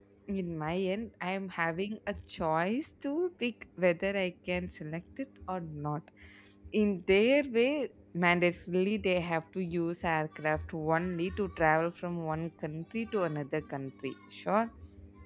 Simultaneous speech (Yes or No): No